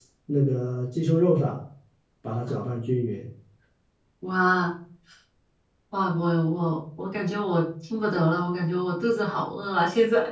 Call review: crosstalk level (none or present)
none